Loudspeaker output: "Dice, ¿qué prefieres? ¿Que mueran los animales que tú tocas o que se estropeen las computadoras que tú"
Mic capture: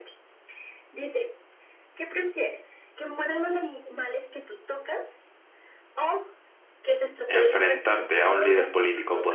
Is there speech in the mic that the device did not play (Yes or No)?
Yes